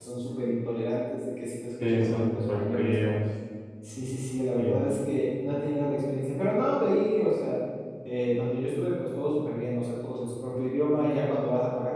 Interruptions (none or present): present